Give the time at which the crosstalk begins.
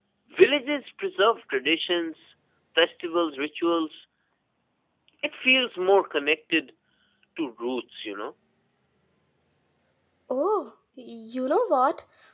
none

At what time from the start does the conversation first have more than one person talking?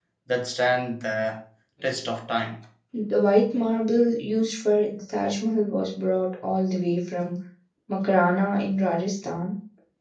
none

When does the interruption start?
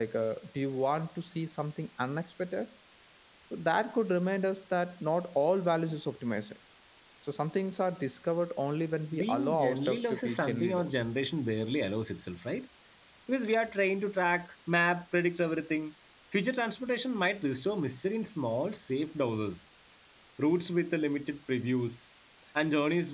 9 s

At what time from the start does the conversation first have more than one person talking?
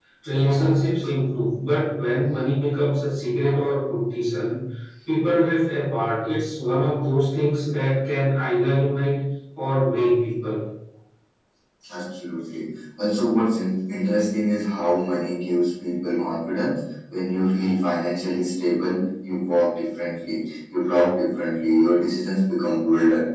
none

